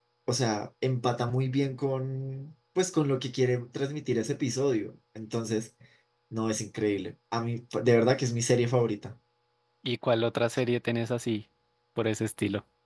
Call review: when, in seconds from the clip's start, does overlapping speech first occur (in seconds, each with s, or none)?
none